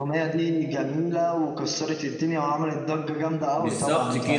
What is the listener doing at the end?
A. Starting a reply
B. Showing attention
A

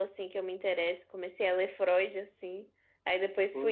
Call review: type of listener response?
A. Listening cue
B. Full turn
A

